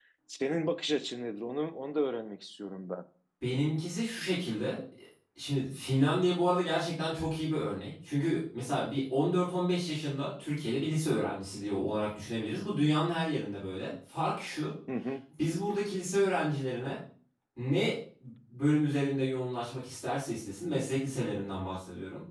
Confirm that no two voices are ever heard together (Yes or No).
Yes